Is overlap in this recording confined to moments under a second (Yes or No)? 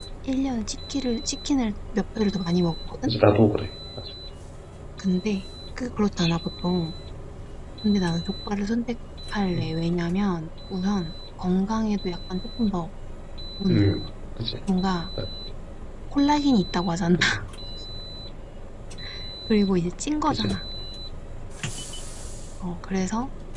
Yes